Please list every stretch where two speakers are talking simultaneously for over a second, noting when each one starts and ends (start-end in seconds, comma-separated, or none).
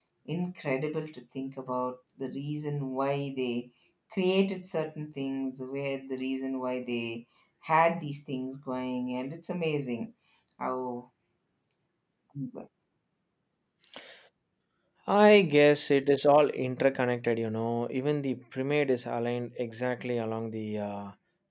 none